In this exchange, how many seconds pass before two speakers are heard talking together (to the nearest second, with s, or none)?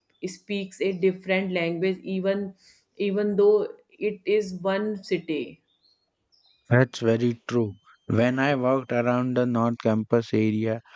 none